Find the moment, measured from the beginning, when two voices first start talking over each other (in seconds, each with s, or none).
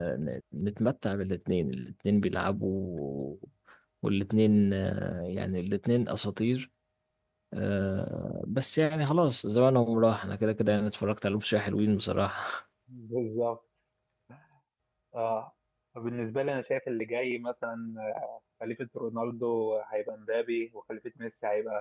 none